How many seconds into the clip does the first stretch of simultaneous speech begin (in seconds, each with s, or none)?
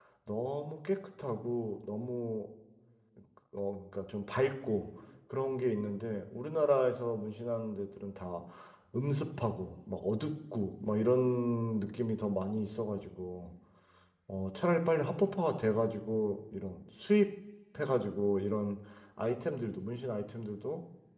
none